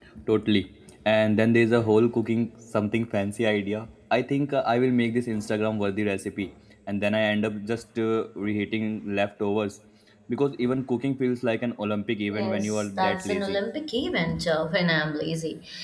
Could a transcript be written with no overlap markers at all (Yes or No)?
No